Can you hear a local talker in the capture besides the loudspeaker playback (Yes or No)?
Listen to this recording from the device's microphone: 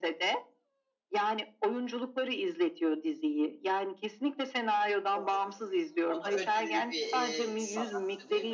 Yes